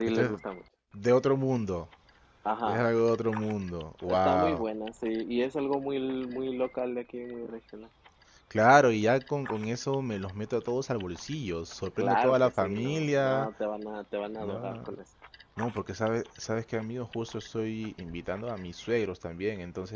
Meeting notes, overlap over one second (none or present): present